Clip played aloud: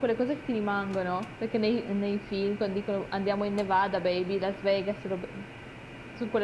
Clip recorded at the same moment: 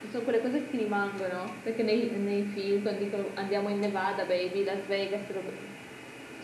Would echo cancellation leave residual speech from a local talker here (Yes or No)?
No